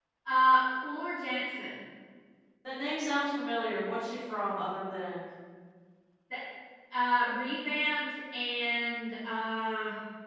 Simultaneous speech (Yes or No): No